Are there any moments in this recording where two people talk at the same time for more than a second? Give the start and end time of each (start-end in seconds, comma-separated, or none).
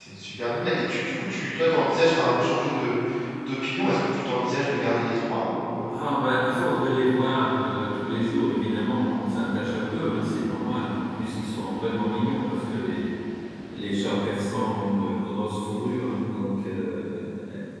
none